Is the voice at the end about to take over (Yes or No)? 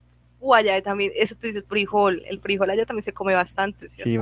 Yes